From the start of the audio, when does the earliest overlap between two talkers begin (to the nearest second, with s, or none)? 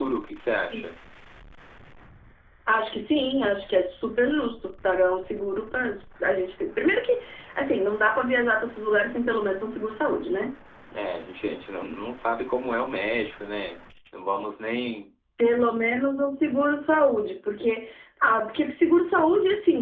none